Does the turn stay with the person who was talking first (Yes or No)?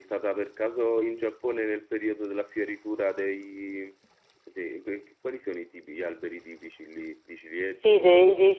No